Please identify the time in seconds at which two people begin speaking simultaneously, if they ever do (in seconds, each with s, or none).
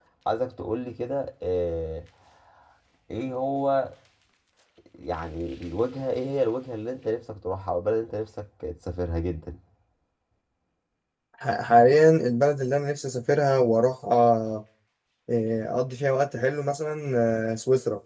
none